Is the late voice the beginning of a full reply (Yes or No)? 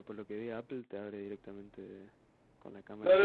Yes